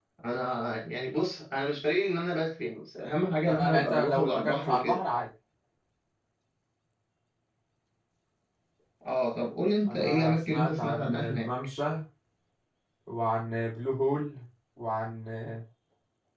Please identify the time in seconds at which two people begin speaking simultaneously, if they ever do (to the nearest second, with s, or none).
3 s